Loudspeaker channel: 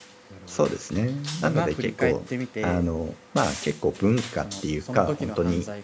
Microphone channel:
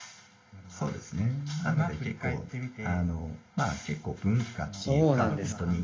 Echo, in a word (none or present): present